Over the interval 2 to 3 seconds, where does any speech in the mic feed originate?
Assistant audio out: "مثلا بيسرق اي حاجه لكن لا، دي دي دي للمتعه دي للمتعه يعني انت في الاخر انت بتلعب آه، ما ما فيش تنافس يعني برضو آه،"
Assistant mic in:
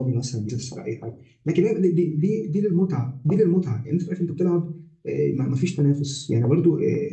echo only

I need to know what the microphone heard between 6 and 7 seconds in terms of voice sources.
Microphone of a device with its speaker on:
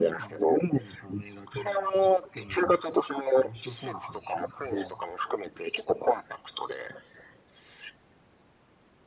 echo only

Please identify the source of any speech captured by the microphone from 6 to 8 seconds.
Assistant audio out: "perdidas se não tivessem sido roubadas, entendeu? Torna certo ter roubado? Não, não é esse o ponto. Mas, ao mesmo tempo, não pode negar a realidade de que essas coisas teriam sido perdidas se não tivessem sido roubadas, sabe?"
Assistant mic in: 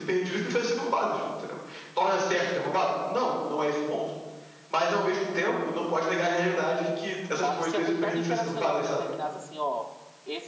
both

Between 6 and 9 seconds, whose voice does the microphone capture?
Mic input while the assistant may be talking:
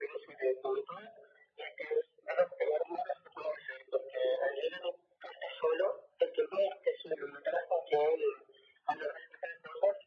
echo only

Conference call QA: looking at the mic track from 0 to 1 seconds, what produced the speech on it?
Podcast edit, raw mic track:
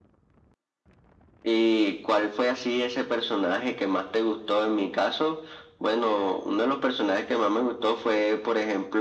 neither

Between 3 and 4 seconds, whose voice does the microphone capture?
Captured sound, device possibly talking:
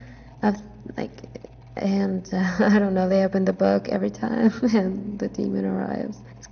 echo only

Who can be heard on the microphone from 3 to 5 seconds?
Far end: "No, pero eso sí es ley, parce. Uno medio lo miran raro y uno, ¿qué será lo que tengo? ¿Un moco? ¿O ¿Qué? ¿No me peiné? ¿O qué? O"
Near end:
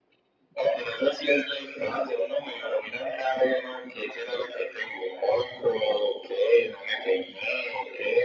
echo only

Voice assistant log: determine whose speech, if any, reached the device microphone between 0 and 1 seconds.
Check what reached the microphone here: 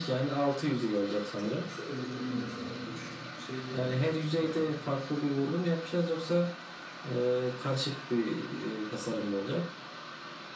echo only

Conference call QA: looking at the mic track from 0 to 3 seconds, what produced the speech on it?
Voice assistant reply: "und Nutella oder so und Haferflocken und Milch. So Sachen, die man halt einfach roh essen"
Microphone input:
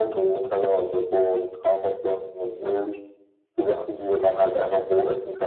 echo only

